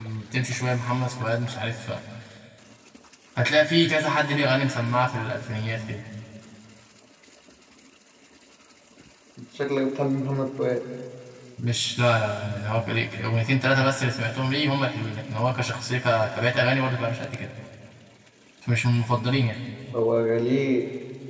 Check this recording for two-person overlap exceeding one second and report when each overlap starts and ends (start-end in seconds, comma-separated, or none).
none